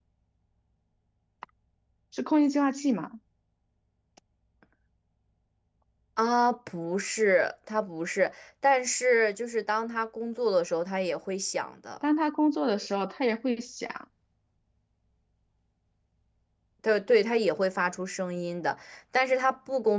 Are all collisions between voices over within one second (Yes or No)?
Yes